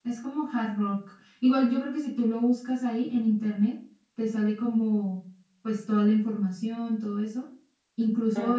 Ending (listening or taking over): listening